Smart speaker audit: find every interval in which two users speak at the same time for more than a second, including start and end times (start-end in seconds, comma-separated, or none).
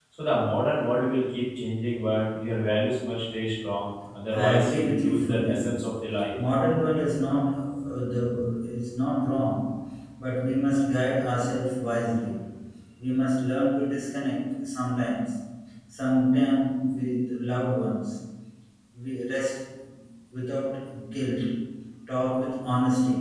4.3-5.7